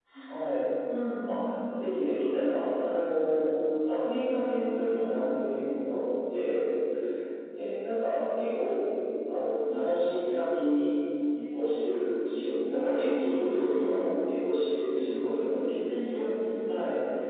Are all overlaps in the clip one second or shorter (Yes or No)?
No